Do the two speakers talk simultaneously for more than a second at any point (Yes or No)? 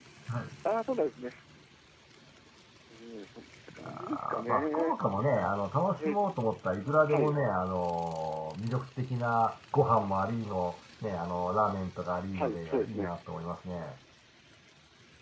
Yes